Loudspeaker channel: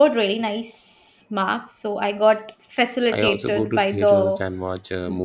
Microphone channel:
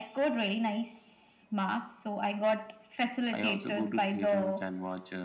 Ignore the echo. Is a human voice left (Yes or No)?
No